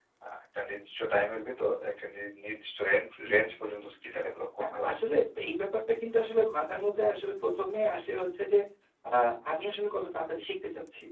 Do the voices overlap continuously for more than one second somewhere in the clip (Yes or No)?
No